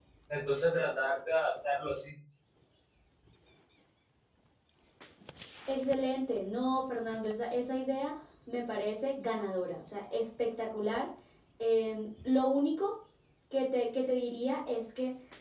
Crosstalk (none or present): none